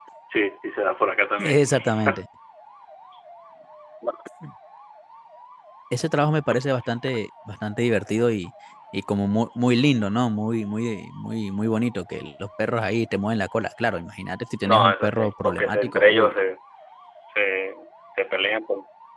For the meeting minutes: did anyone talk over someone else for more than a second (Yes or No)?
Yes